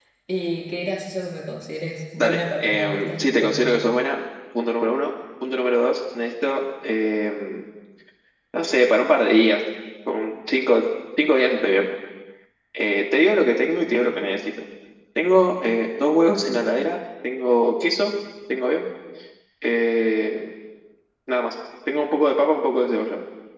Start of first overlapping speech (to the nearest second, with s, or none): 2 s